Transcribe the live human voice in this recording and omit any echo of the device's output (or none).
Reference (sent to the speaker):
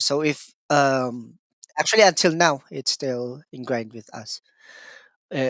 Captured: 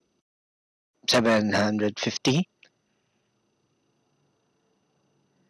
750.